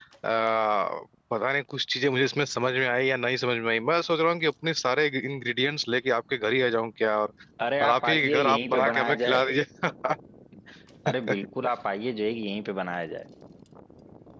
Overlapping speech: Yes, from 7.8 s

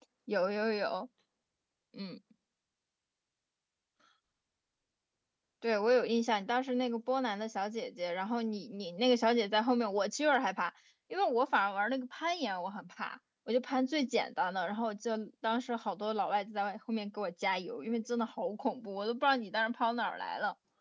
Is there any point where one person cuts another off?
No

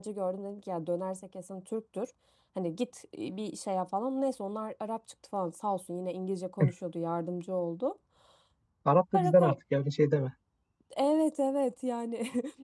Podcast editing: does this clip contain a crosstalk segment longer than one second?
No

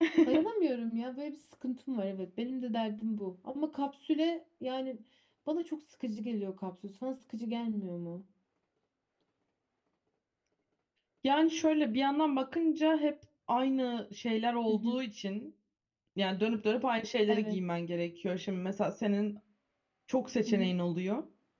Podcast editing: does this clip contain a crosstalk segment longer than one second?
No

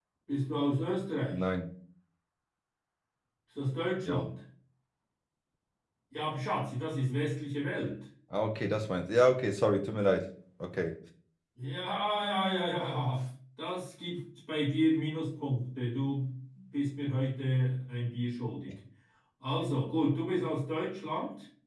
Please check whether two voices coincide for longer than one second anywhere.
No

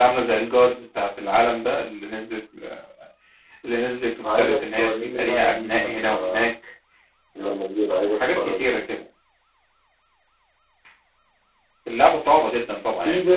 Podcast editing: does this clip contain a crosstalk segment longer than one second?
Yes, from 4.4 s

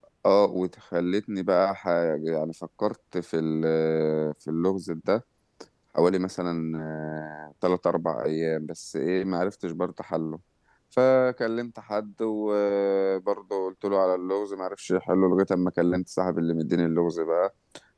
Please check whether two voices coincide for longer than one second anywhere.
No

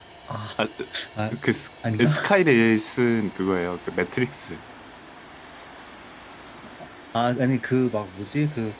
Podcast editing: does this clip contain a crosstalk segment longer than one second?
No

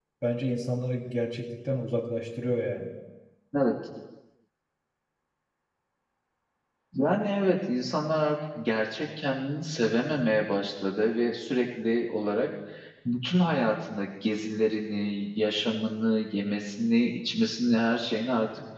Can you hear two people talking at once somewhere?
No

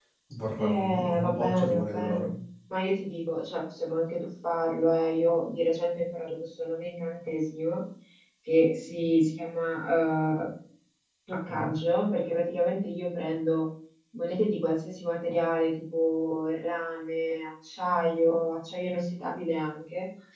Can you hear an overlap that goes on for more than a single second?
Yes, from 0.6 s

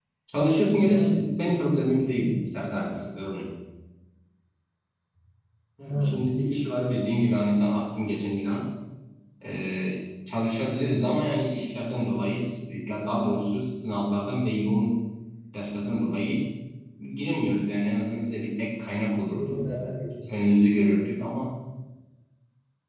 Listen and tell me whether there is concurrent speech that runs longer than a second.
No

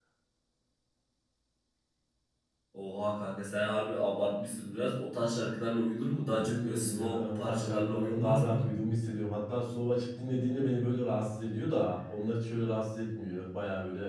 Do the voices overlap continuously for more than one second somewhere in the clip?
Yes, from 6.3 s

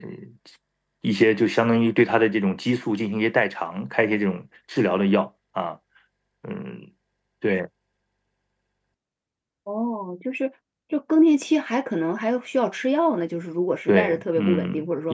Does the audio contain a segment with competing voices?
Yes, from 13.9 s

